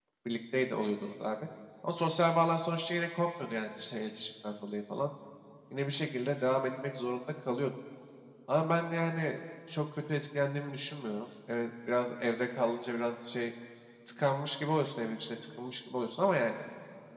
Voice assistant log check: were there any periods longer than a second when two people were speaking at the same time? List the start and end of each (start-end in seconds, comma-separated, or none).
none